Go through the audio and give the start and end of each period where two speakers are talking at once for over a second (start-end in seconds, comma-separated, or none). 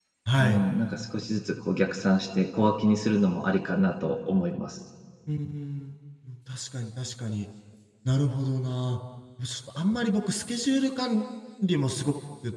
none